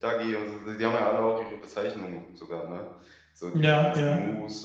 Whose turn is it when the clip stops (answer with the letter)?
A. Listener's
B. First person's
B